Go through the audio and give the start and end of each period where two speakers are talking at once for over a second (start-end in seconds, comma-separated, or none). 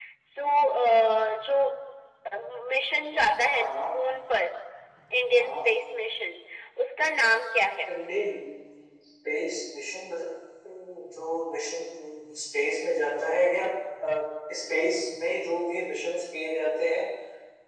none